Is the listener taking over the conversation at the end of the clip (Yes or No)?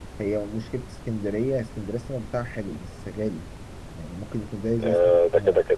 Yes